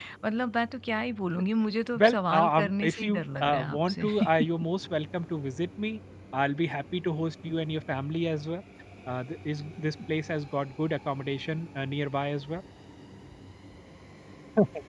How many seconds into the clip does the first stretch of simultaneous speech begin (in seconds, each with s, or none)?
2.0 s